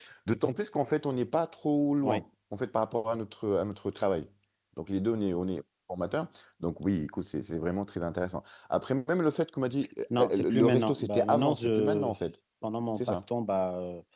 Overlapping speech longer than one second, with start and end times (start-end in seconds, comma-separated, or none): 10.2-12.1